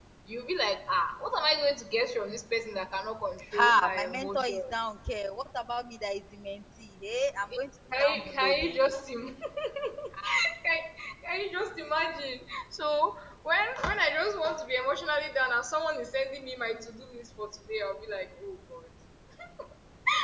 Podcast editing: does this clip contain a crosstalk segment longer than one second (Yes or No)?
Yes